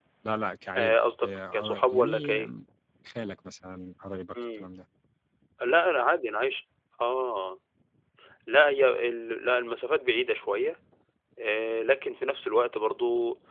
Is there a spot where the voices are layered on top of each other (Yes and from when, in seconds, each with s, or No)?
Yes, from 0.8 s